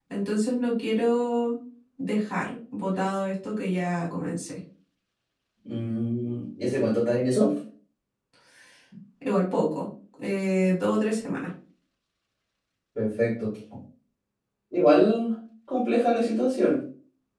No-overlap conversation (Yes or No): Yes